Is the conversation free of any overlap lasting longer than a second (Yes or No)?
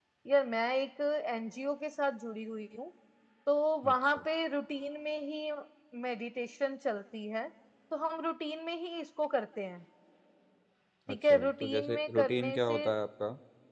No